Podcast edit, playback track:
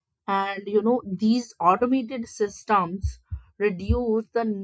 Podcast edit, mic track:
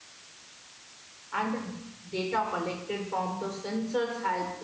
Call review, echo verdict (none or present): none